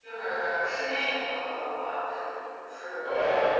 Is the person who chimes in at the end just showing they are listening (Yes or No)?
No